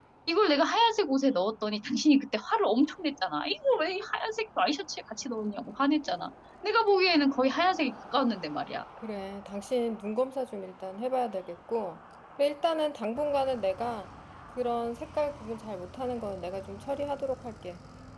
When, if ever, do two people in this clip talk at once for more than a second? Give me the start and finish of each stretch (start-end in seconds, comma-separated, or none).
none